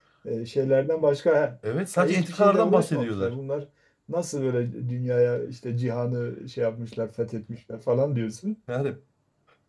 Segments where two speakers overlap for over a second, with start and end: 2.0-3.3

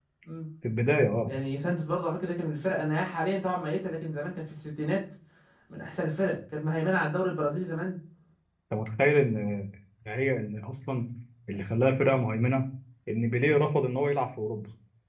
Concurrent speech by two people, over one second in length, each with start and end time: none

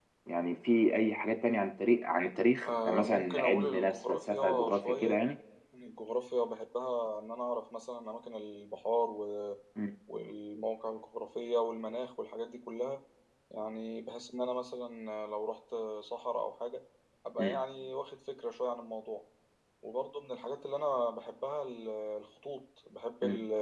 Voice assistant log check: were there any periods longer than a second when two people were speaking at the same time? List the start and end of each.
2.6-5.2

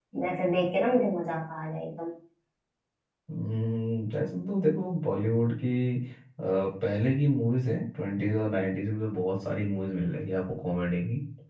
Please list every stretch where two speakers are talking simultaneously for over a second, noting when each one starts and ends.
none

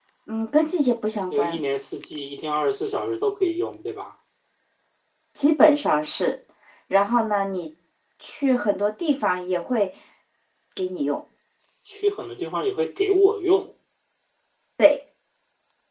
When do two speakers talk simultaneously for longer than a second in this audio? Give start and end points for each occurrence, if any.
none

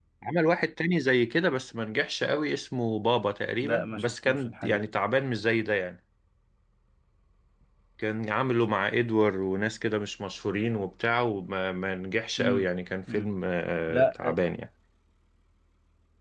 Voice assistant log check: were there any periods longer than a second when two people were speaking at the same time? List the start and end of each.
3.6-4.8

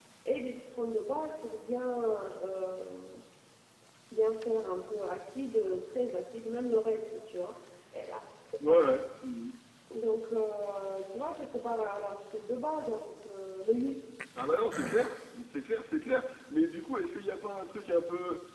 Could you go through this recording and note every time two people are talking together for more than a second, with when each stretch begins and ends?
none

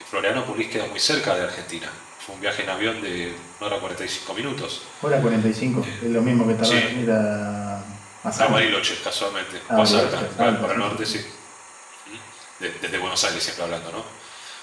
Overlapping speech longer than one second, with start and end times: 9.7-11.1

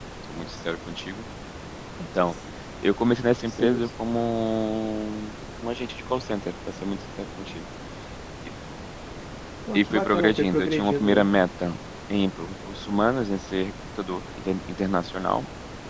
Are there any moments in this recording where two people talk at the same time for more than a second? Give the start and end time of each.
9.7-11.3

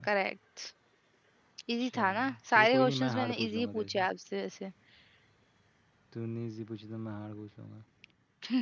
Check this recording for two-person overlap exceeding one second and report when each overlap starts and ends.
1.8-4.0

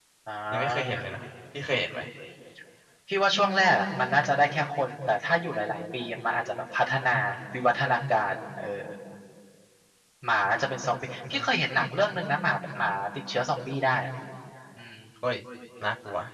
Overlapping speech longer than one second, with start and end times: none

